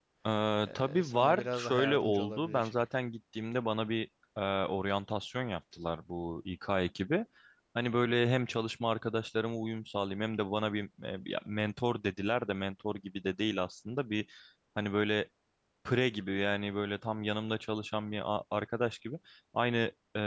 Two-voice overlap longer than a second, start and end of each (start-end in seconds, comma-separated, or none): 0.7-2.7